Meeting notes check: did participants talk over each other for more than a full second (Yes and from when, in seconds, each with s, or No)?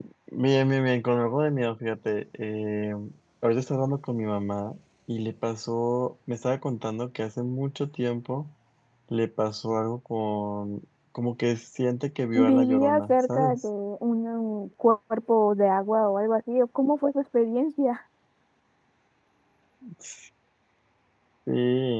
Yes, from 12.4 s